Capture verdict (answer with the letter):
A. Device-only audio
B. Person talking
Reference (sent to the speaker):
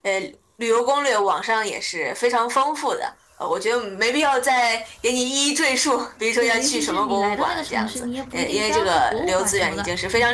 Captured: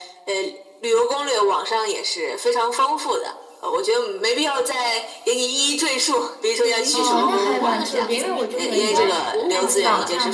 B